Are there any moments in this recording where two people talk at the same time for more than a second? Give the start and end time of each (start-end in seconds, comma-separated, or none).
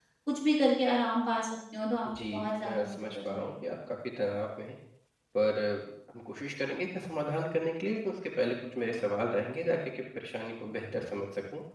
2.1-3.5